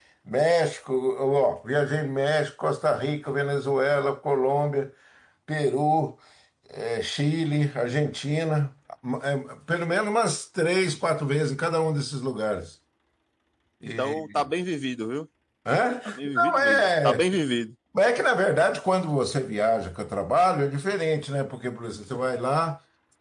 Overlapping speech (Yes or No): Yes